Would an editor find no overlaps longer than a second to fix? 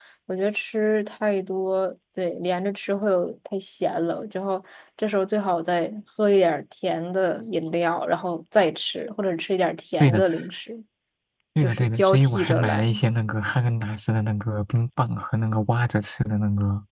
No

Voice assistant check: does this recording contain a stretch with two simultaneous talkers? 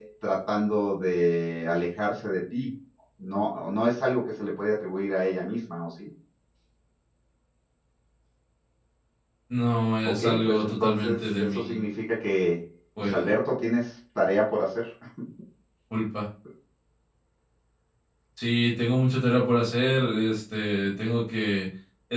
Yes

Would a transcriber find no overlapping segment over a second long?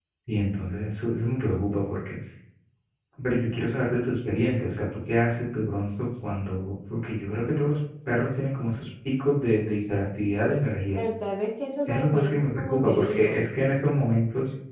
No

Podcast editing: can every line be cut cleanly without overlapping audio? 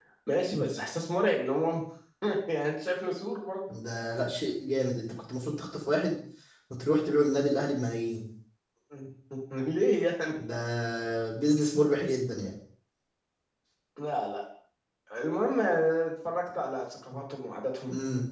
Yes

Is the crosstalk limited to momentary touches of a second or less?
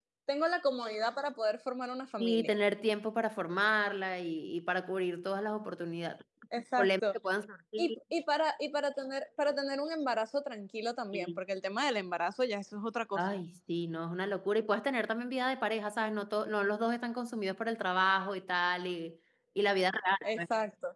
Yes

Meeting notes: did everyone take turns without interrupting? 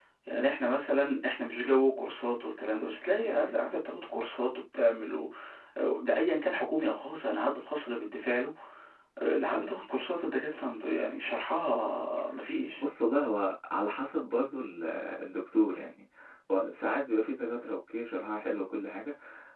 Yes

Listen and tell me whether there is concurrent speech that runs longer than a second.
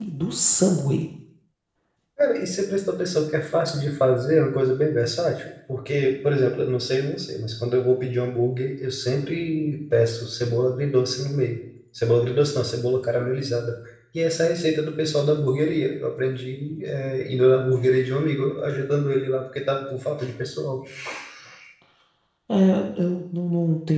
No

